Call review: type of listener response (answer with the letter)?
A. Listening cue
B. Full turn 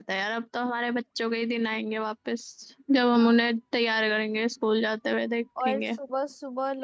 B